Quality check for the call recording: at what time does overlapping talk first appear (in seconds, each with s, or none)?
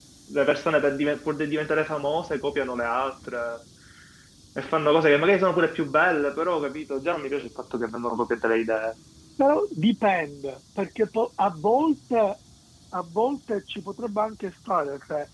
none